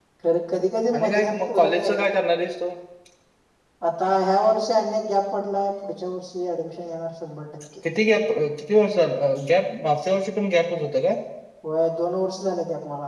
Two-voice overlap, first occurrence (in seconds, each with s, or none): 0.9 s